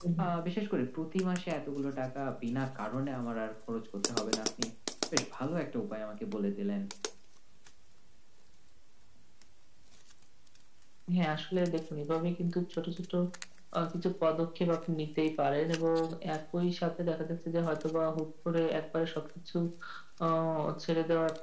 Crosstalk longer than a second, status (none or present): none